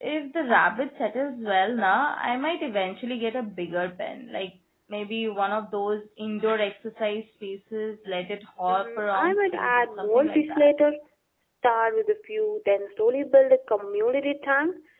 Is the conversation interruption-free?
No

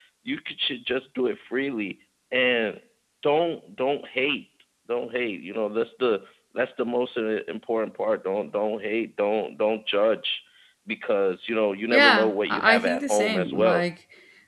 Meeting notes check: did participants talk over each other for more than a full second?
Yes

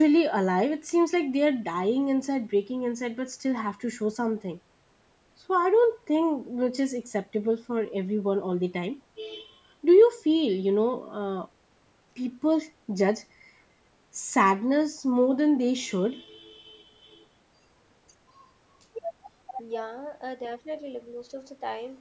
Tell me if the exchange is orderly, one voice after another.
Yes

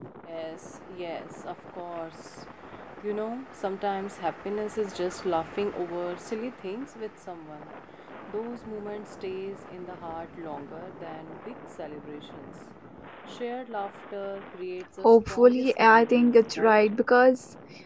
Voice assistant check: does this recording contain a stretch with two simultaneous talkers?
Yes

